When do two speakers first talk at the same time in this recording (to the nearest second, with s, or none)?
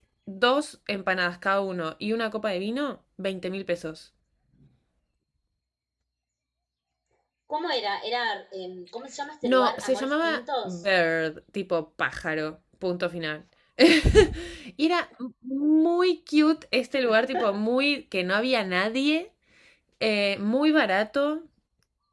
9 s